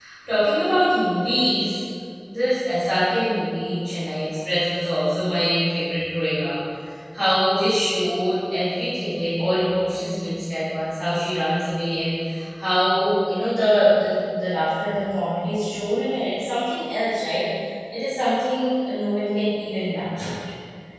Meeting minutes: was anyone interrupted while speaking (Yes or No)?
No